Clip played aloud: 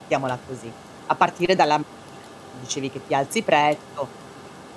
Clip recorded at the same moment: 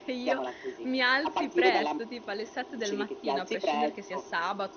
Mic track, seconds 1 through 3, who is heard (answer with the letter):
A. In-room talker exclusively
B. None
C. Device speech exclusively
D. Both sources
D